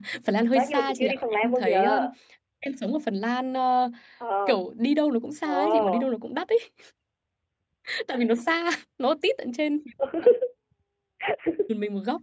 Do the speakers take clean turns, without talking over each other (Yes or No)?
No